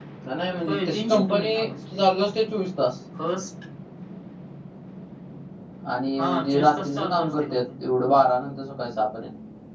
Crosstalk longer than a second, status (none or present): present